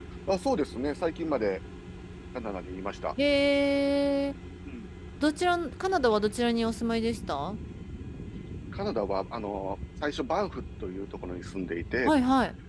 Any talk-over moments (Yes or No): No